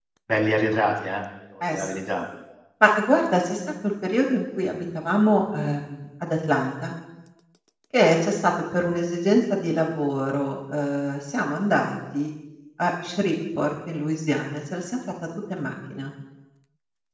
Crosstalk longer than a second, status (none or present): none